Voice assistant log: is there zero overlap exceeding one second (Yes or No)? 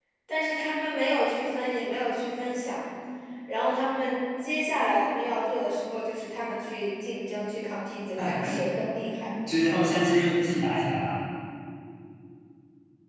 Yes